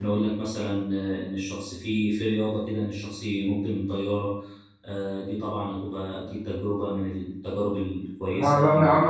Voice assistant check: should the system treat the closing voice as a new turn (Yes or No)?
Yes